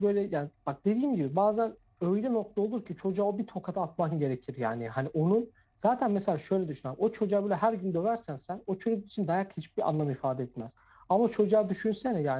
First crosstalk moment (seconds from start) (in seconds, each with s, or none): none